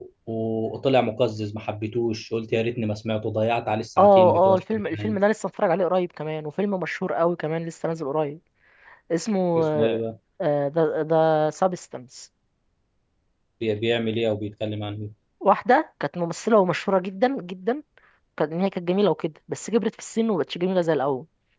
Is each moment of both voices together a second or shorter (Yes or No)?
No